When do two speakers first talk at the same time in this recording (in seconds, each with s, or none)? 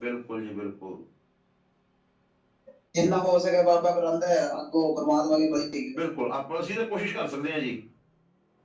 none